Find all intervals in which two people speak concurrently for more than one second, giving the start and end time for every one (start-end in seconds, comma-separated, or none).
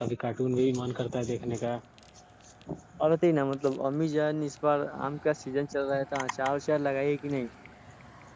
none